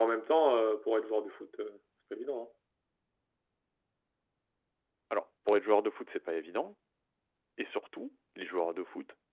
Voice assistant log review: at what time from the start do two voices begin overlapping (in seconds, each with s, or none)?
none